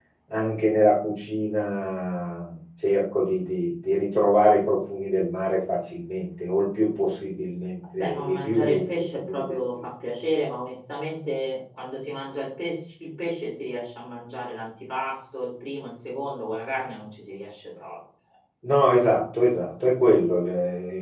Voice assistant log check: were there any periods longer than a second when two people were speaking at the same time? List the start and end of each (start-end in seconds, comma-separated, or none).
8.0-9.7